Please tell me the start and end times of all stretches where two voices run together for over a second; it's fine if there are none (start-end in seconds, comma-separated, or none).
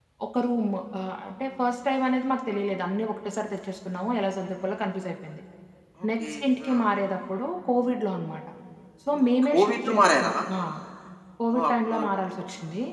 9.1-10.3